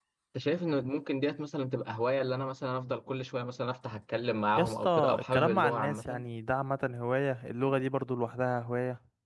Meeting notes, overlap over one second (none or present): present